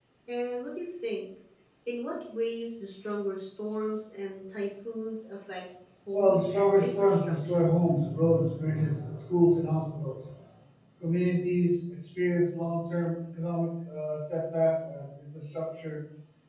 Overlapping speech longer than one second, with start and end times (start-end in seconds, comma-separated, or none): 6.1-7.7